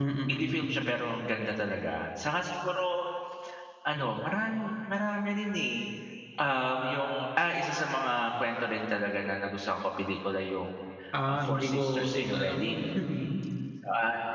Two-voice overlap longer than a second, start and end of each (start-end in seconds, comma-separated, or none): 11.3-12.7